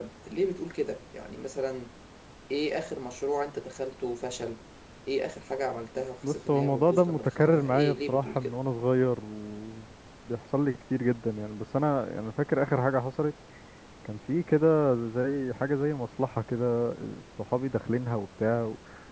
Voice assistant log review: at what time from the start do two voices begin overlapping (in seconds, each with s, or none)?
6.2 s